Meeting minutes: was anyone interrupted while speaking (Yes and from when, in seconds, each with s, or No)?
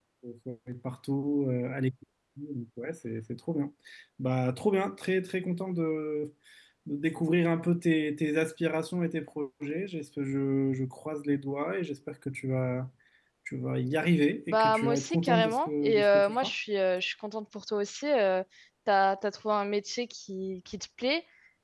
Yes, from 14.5 s